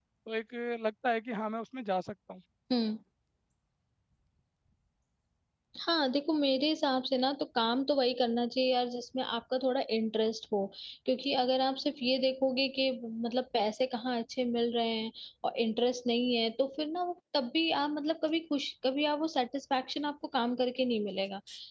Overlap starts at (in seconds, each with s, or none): none